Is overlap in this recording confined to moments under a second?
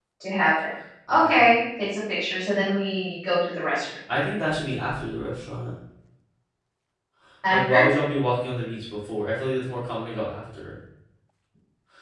Yes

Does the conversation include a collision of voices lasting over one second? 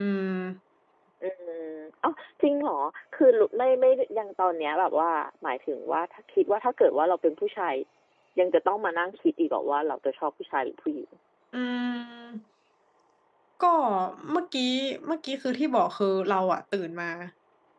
No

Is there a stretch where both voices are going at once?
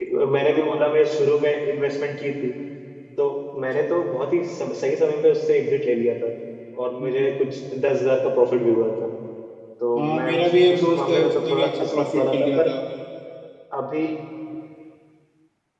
Yes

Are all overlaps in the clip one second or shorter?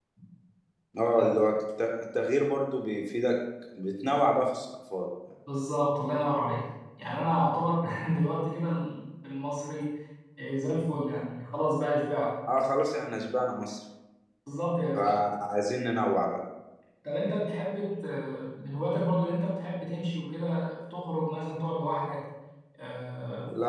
Yes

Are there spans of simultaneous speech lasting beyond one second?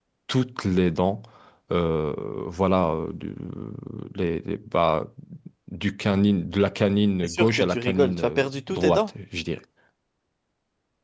Yes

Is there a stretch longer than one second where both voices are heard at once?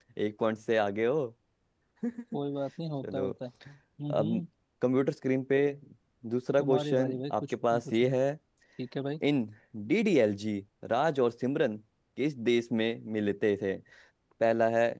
Yes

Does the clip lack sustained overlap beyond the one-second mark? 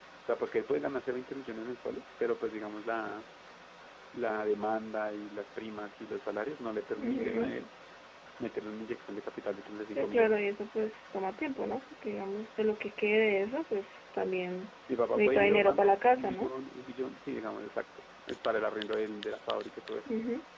No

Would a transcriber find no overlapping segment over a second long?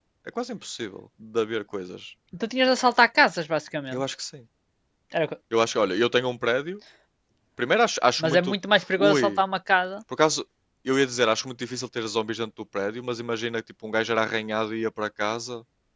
Yes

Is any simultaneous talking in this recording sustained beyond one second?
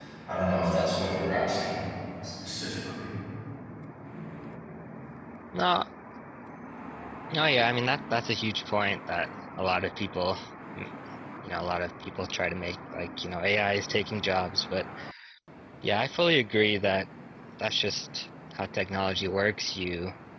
No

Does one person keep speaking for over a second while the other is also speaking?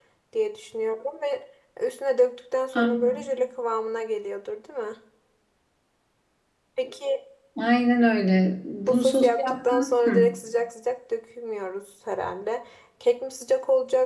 Yes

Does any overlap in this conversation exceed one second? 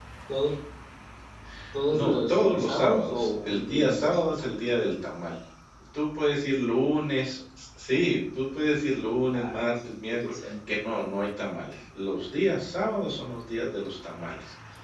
Yes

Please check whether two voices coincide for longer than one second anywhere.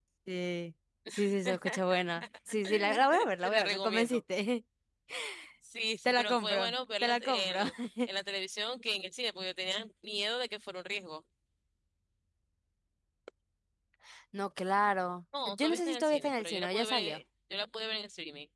Yes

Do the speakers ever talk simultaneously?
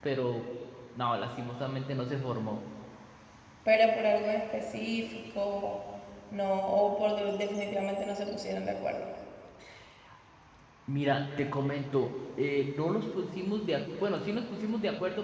No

